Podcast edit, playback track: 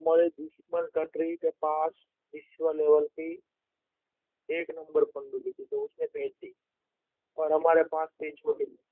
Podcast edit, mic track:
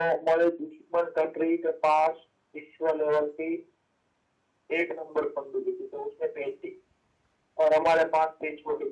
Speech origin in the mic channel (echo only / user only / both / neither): echo only